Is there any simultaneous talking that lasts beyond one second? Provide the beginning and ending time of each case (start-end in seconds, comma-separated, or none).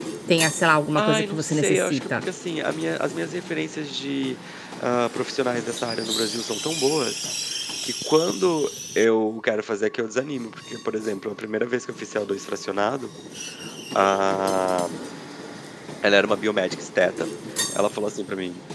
1.0-2.2